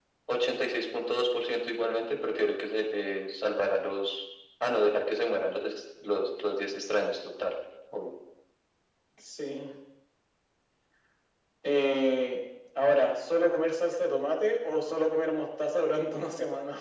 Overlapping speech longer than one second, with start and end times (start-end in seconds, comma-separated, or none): none